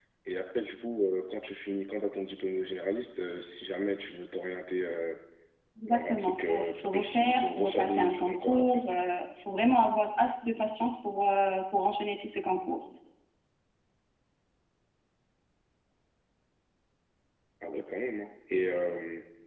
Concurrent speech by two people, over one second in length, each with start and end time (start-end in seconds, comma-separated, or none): 5.9-8.8